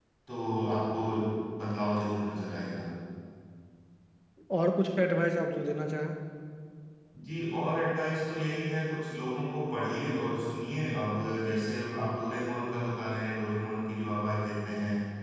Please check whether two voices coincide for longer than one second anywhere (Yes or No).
No